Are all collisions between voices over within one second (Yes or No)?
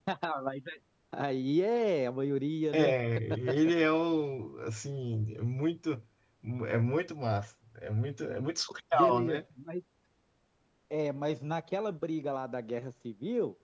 Yes